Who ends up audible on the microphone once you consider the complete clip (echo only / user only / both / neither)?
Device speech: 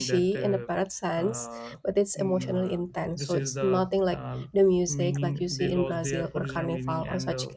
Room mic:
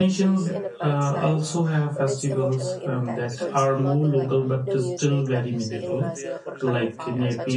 both